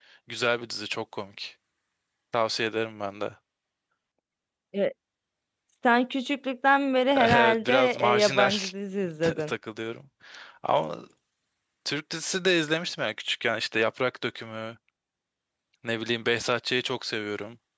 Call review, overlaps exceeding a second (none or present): present